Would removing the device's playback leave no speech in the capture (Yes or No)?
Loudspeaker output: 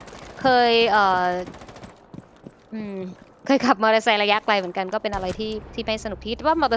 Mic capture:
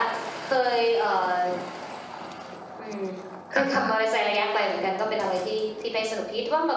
No